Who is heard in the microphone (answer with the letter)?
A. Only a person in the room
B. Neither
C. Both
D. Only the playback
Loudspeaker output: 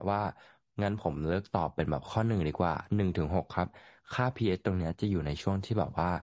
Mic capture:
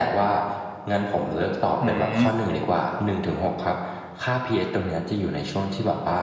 C